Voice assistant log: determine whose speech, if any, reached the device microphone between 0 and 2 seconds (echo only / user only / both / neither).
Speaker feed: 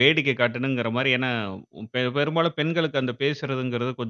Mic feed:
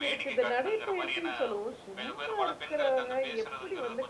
both